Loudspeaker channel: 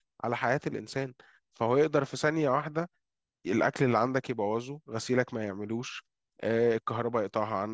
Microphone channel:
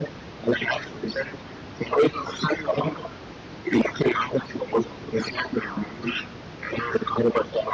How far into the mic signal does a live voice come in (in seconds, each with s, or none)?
none